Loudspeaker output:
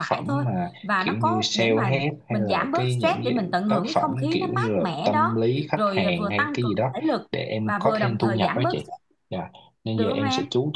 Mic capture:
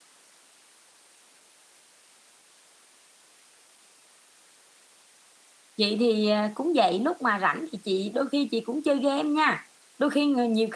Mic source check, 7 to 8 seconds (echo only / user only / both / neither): user only